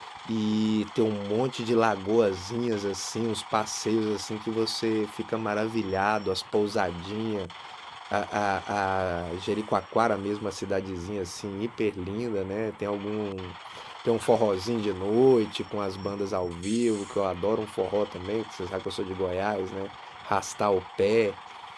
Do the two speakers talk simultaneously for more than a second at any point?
No

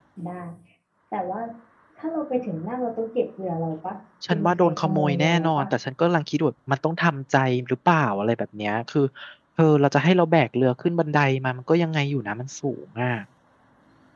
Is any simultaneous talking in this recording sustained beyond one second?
Yes, from 4.2 s

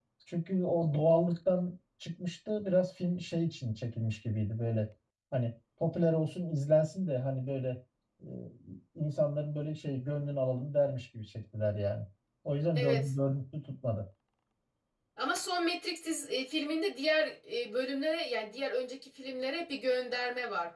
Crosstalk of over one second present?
No

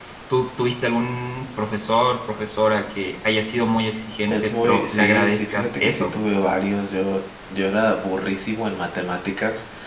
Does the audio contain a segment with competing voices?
Yes, from 4.3 s

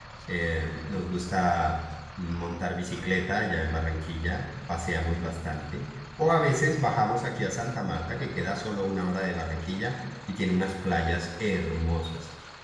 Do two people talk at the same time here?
No

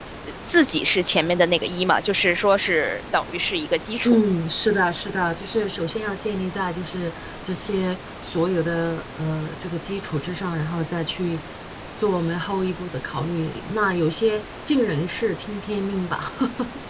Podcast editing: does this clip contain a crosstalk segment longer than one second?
No

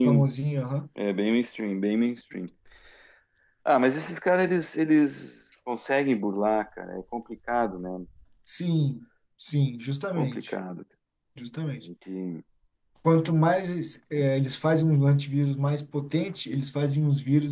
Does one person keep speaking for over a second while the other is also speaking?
No

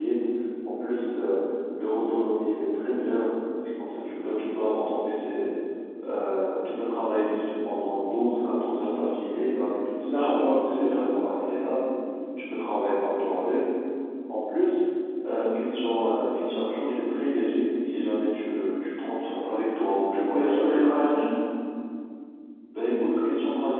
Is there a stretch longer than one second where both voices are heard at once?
Yes, from 10.1 s

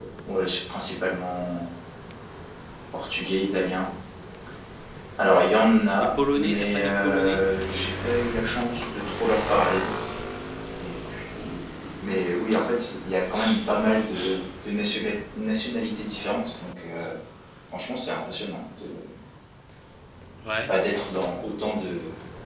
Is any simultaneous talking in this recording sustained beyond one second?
Yes, from 6.0 s

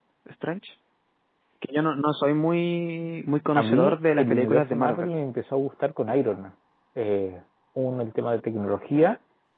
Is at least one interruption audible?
Yes, from 3.6 s

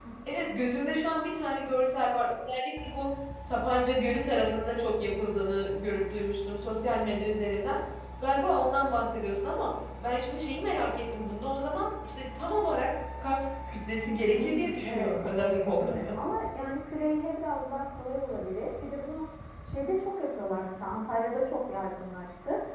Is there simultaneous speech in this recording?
Yes, from 14.3 s

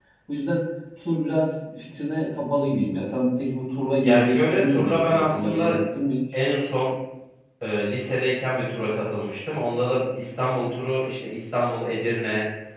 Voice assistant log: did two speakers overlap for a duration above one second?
Yes, from 4.0 s

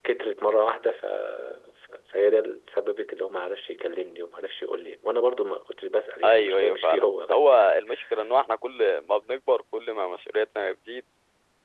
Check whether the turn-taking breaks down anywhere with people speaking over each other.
Yes, from 6.2 s

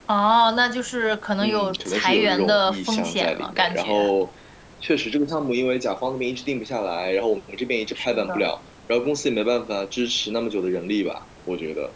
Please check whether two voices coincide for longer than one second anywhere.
Yes, from 1.4 s

